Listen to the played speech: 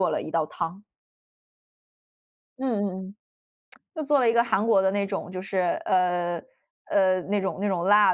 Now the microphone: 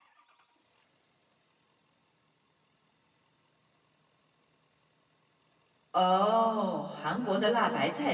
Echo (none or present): none